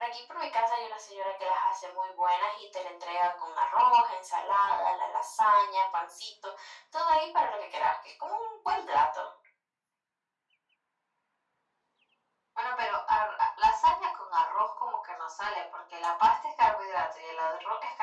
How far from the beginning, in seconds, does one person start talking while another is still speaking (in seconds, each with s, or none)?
none